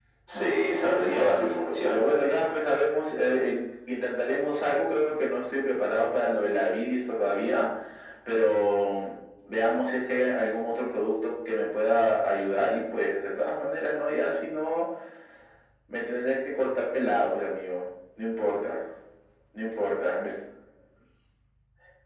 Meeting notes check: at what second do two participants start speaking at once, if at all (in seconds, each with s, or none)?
0.8 s